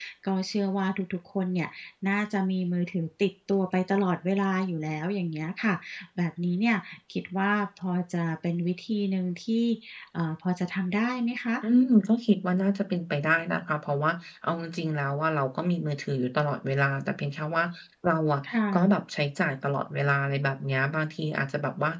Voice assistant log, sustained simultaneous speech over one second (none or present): none